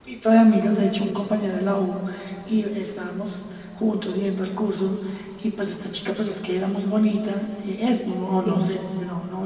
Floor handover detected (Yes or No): No